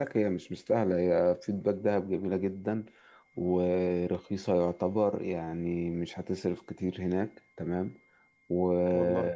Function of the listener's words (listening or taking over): listening